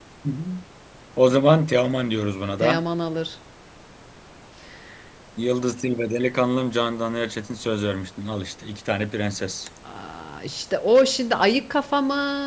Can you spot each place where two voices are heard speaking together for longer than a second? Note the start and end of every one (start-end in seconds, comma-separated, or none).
none